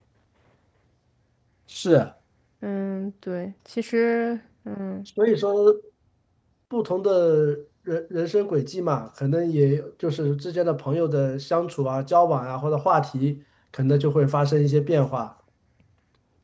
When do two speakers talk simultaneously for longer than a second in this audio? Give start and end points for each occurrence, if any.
none

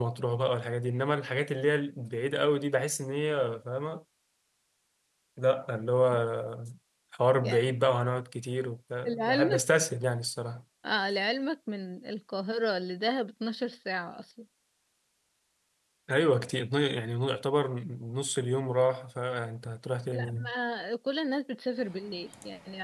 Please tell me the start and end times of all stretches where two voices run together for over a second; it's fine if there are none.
none

